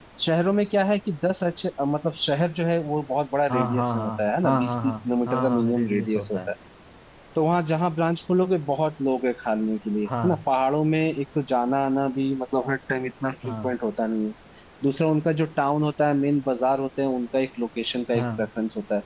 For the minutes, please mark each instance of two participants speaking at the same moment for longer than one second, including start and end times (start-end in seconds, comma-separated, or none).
3.5-6.4